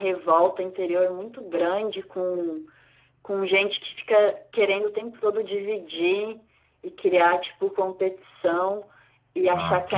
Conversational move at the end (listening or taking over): listening